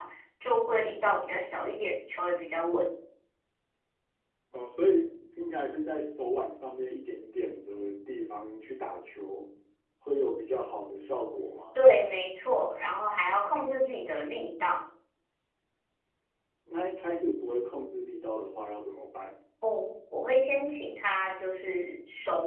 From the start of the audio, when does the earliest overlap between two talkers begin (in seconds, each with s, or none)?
none